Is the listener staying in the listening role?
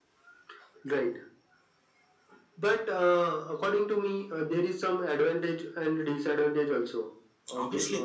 No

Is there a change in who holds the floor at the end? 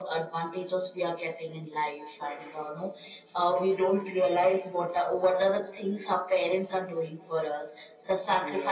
No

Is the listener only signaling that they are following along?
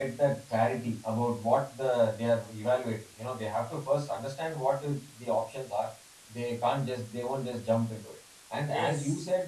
Yes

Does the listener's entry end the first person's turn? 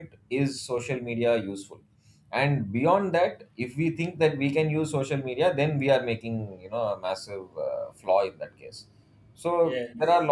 No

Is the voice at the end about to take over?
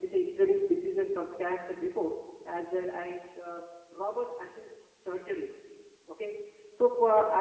No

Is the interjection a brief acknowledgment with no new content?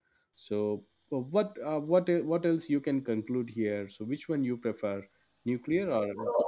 No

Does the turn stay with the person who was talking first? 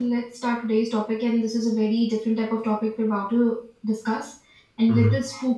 Yes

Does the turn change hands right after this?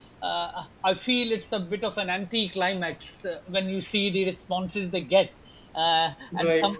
No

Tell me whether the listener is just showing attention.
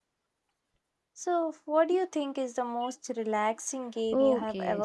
No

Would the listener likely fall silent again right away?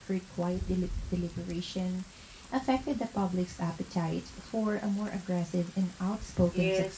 No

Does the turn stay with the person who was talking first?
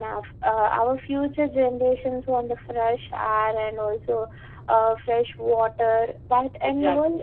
Yes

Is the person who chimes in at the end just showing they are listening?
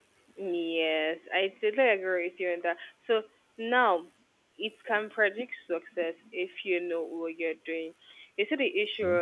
Yes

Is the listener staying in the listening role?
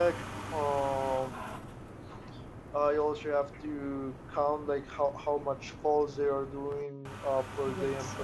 Yes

